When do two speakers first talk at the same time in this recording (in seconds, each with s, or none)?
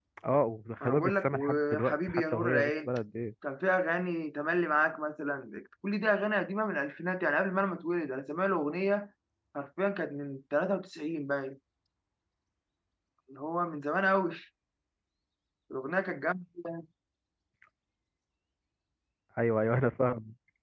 0.8 s